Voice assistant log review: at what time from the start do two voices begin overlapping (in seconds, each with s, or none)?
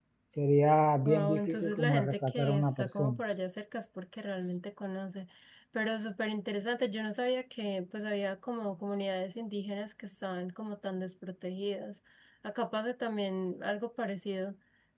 1.0 s